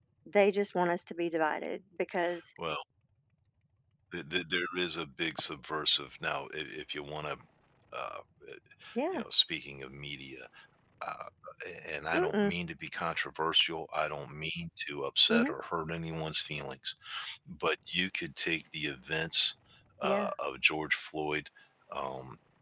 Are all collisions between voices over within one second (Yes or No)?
Yes